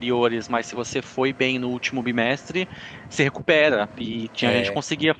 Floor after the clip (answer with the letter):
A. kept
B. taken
A